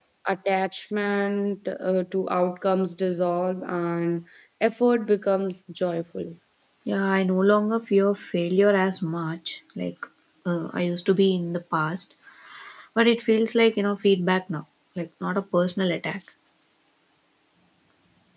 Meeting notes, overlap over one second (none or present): none